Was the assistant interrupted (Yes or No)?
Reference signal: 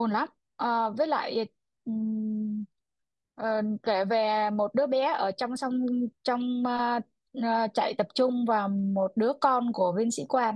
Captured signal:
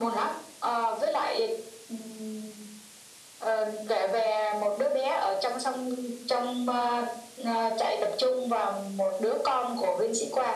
No